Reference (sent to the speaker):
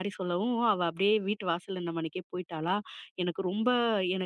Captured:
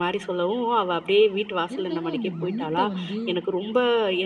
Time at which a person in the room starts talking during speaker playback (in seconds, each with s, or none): 1.7 s